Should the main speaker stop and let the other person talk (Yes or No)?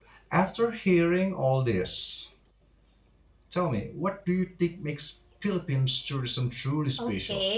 Yes